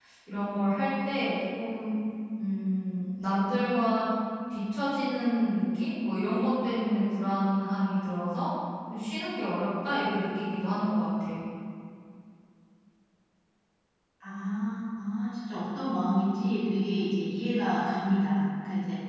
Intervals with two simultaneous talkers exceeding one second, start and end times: none

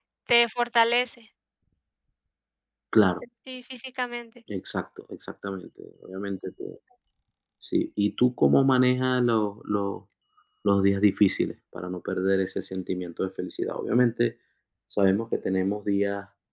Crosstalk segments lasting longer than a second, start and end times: none

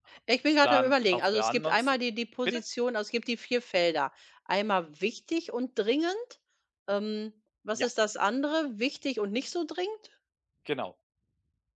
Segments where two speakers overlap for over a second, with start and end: 0.6-1.9

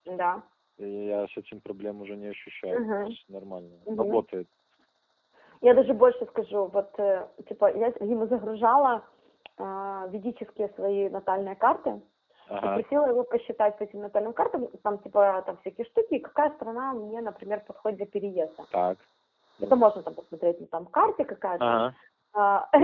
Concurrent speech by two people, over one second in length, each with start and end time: none

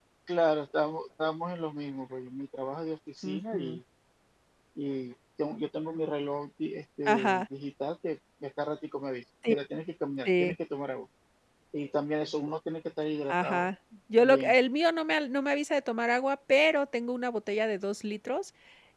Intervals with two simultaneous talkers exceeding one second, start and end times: none

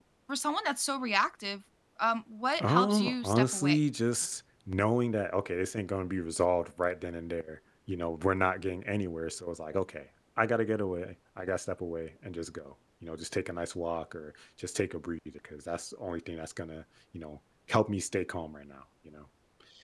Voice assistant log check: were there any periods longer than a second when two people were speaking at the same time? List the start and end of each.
2.6-3.8

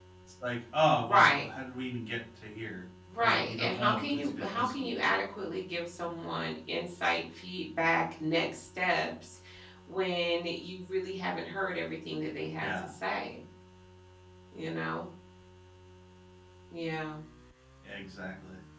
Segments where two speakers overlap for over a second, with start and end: 3.2-4.9

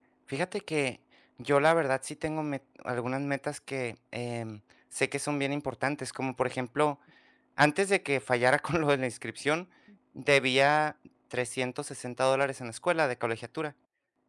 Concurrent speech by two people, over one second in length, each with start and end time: none

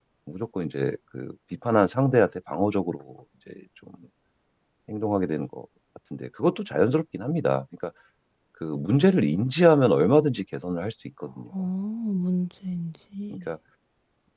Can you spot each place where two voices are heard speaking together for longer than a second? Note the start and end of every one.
none

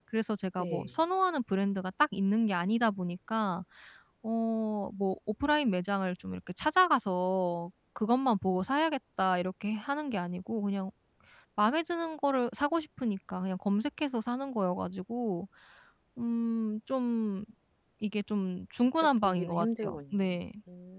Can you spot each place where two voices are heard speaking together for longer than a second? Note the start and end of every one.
18.8-20.3

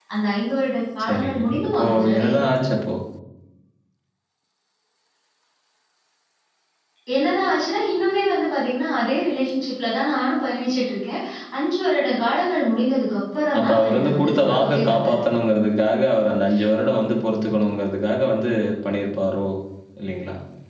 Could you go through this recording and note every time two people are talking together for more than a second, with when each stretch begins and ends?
1.0-2.5, 13.6-15.2

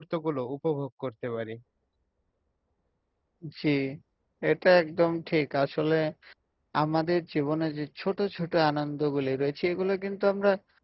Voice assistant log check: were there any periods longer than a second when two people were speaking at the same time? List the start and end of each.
none

